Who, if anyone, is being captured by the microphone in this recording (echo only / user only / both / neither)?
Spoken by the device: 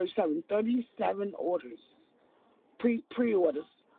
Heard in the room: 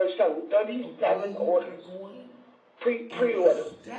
both